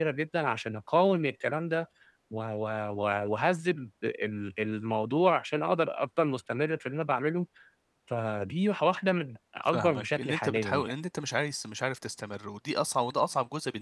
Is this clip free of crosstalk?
No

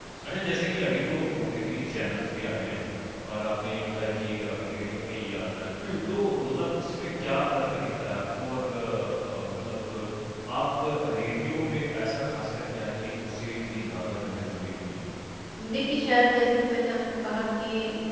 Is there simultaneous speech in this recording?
No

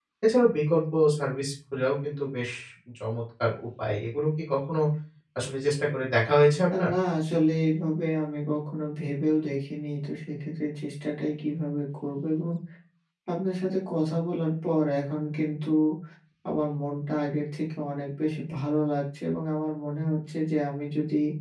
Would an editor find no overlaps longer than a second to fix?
Yes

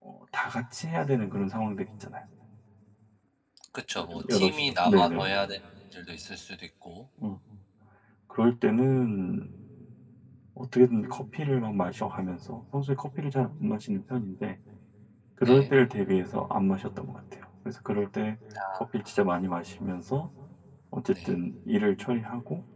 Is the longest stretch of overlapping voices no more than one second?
No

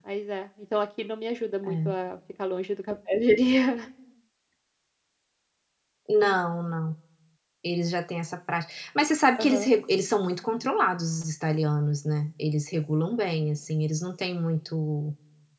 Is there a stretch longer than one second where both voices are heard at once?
No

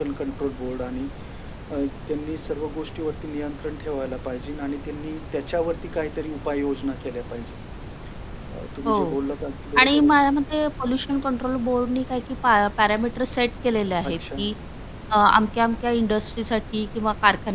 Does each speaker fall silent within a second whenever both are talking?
Yes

